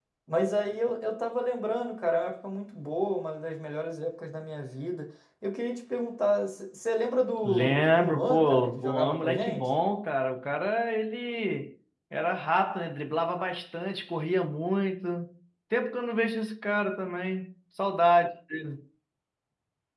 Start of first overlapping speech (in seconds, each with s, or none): 7.4 s